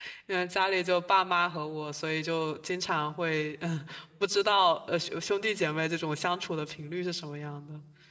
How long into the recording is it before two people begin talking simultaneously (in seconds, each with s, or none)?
none